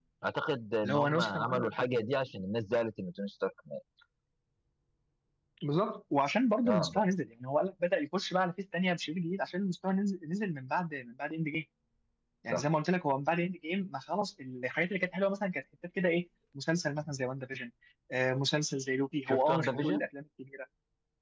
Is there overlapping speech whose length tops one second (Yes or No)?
Yes